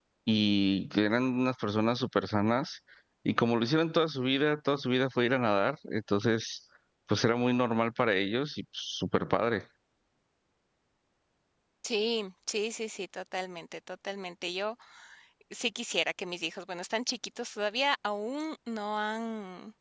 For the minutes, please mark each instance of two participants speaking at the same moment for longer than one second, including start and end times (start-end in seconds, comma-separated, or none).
none